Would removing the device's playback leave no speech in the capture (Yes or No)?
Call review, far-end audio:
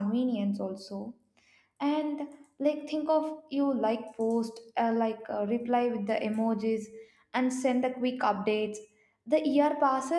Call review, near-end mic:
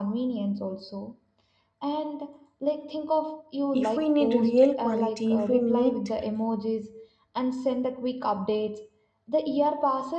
No